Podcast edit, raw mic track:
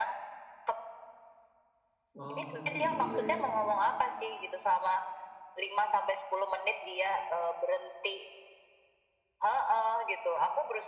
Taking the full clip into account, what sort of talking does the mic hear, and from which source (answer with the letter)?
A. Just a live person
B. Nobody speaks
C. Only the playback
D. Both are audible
D